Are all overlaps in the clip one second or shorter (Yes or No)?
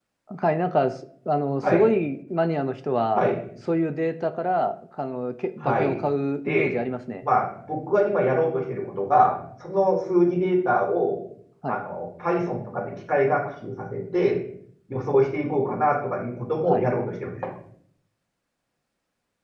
Yes